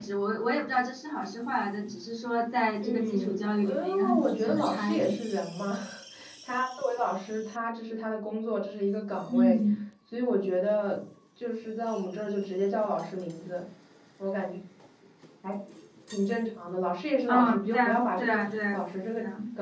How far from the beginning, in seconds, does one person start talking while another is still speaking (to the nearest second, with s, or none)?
3 s